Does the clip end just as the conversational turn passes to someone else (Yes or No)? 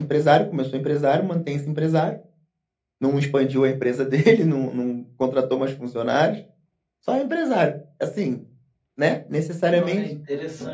Yes